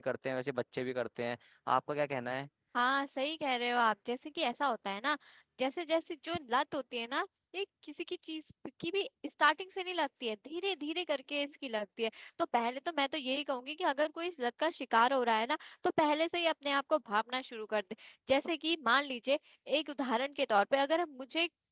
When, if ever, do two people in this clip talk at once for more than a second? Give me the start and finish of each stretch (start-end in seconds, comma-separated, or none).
none